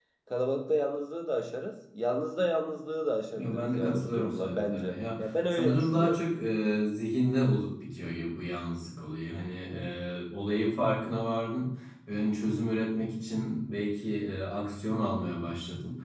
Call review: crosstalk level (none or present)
present